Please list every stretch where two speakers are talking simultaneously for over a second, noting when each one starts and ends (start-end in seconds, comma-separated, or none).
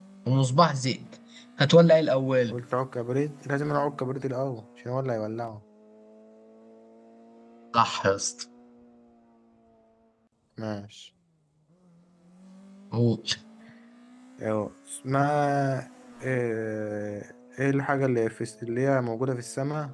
none